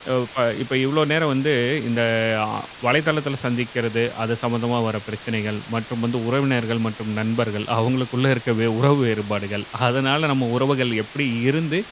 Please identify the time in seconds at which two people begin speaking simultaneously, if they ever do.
none

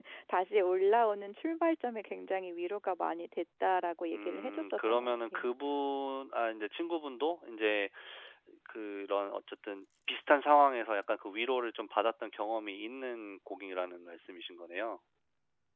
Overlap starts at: 4 s

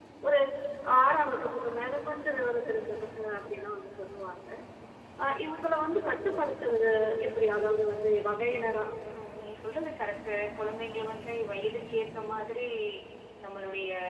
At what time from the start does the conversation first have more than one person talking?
none

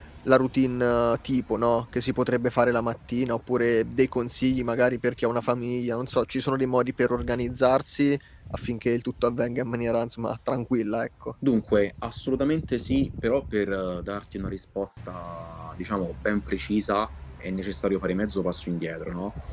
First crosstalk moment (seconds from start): none

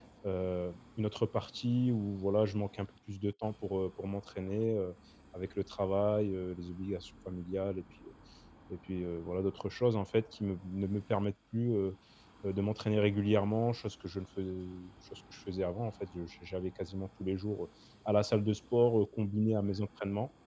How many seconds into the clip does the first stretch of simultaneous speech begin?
none

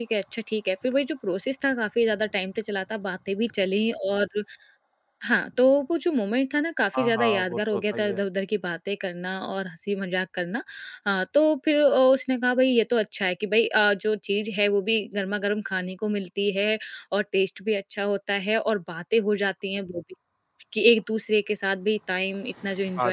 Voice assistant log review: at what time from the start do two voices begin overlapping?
7 s

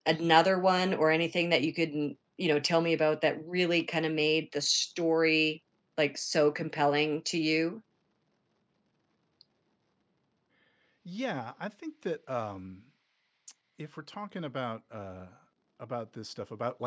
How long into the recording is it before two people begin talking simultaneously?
none

